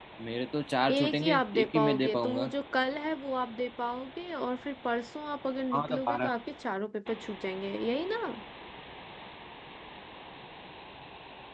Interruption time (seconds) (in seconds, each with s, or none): 0.9 s